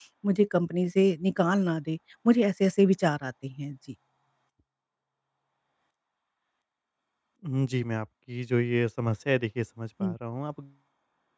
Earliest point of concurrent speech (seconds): none

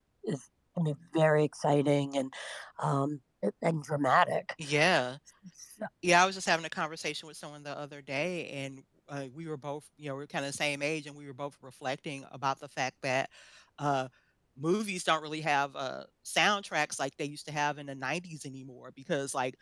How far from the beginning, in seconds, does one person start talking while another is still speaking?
none

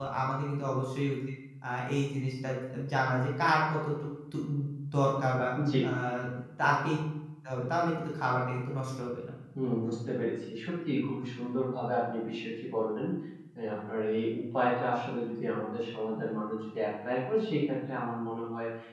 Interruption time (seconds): none

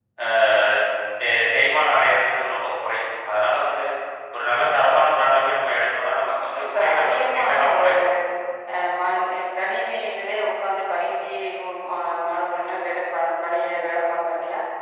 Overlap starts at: 6.7 s

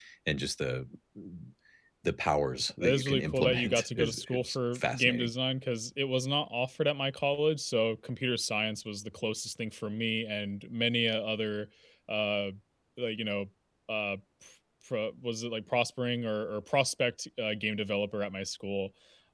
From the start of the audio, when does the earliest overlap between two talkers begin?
2.8 s

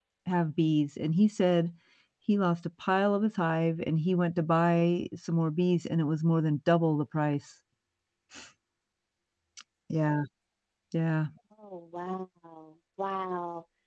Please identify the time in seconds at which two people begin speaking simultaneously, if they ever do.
none

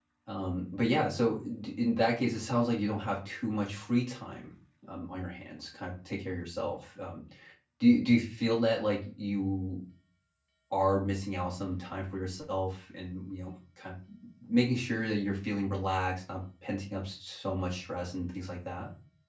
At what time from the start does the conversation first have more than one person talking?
none

